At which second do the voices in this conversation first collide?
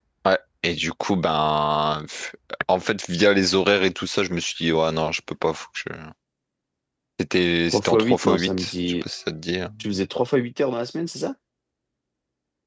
8 s

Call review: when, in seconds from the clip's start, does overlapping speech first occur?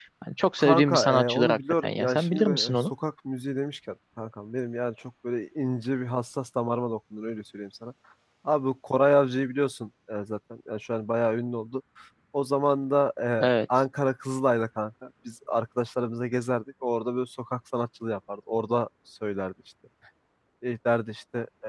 1 s

